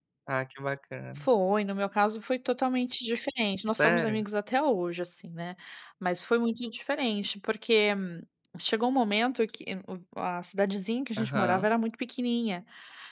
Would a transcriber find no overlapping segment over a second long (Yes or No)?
Yes